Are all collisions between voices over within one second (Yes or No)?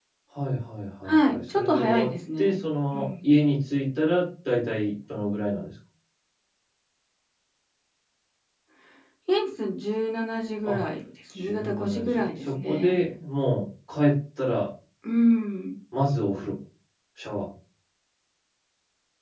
No